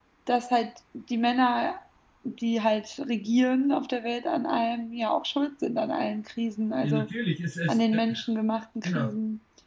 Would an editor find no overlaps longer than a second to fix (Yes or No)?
Yes